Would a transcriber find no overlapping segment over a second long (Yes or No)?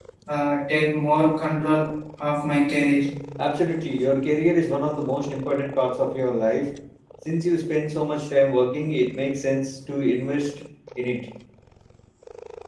Yes